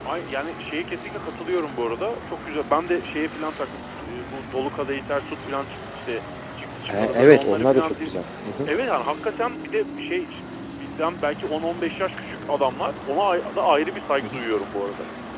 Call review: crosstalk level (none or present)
present